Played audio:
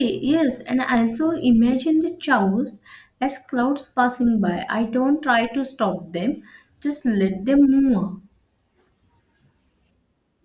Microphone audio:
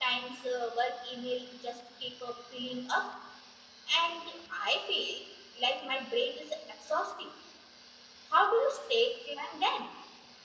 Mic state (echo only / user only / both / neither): user only